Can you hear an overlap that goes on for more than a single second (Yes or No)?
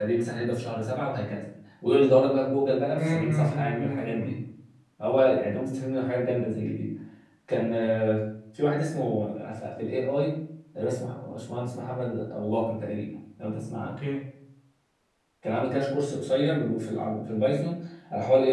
Yes